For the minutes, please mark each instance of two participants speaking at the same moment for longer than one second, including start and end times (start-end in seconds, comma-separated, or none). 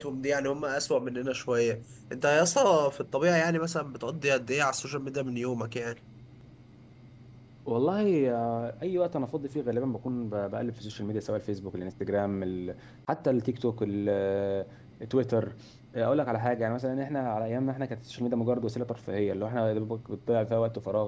none